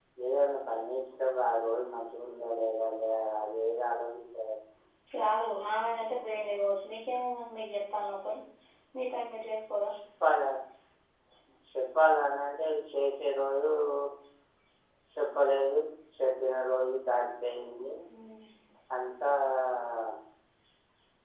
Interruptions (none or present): none